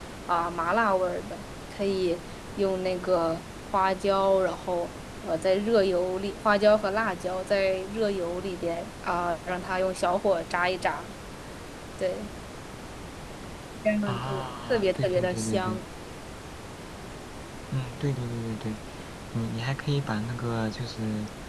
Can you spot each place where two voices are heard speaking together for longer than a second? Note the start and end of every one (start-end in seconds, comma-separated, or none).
14.1-15.8